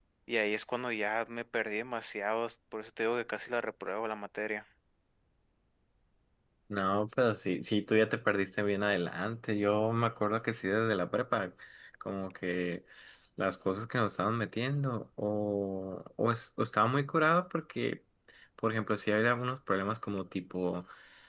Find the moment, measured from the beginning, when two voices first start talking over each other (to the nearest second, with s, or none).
none